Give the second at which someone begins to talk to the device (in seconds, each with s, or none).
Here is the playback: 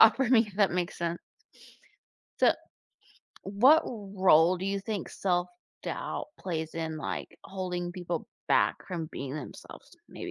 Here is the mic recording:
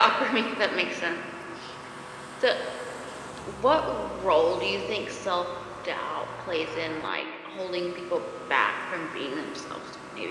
none